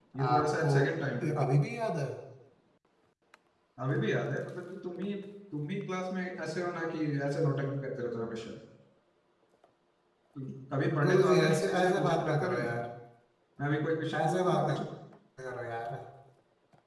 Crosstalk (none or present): present